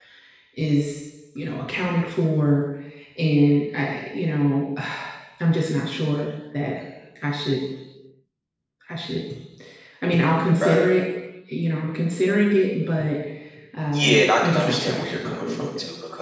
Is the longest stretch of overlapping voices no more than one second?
No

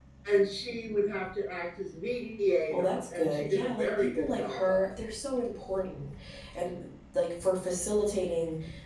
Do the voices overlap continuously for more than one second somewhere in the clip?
Yes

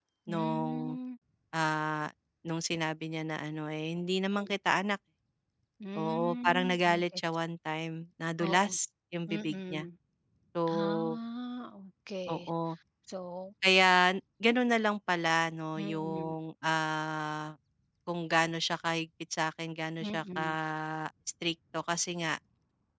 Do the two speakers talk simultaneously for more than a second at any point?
Yes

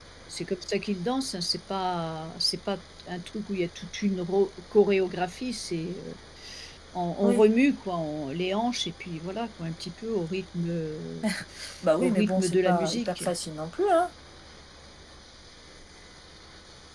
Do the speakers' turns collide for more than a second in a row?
Yes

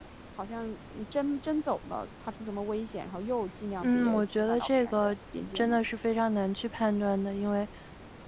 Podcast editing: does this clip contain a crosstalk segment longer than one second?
Yes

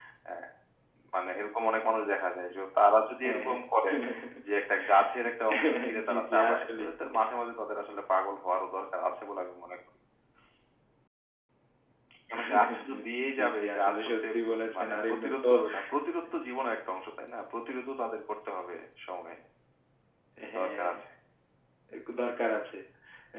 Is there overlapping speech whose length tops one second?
Yes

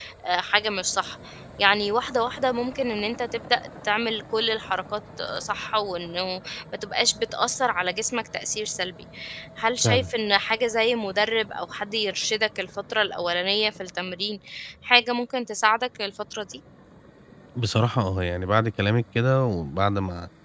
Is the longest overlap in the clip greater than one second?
No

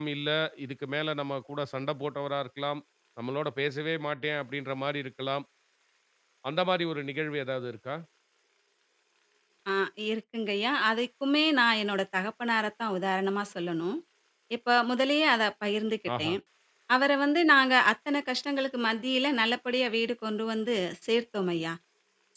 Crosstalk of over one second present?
No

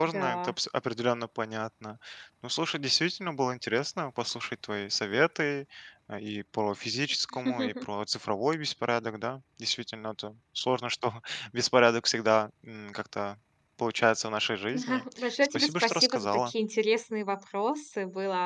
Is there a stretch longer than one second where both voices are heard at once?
Yes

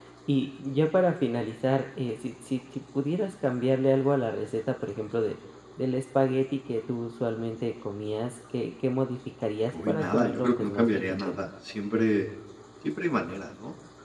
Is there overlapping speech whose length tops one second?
Yes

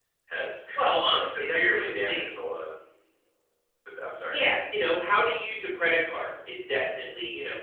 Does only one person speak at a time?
No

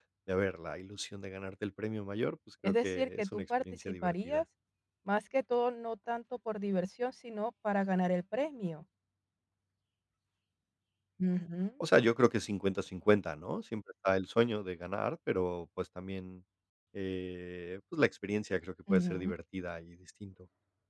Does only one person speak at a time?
No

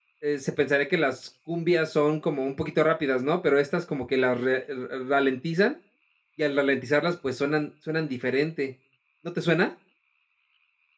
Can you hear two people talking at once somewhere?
No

